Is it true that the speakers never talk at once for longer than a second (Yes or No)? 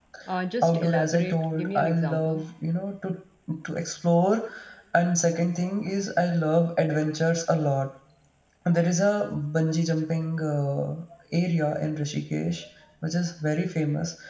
No